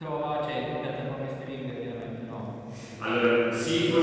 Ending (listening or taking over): taking over